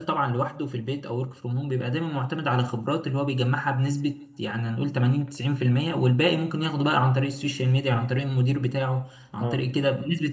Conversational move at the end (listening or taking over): listening